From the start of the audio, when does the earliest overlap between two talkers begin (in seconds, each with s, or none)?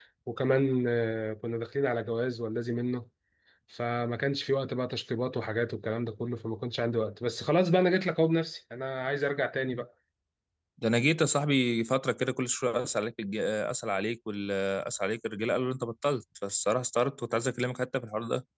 none